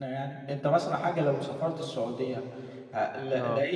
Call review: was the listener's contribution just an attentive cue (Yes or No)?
Yes